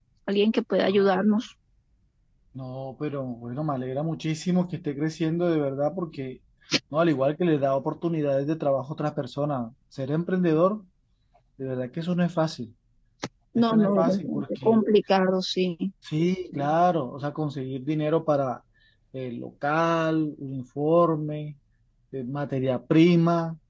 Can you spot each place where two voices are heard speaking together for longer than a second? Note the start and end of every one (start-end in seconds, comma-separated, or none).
13.6-14.8